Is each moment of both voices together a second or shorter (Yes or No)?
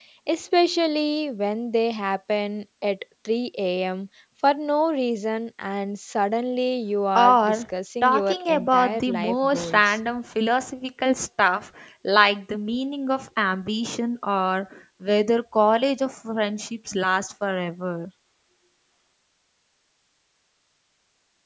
No